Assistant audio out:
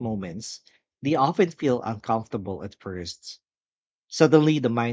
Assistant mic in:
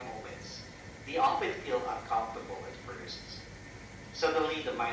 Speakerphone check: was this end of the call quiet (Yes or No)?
Yes